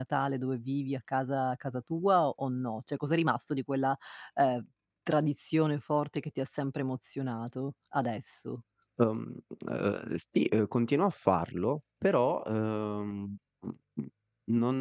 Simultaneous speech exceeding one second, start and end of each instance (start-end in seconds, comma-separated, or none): none